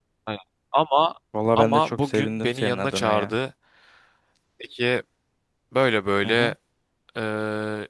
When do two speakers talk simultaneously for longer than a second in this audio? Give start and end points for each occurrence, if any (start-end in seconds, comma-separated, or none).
1.6-3.3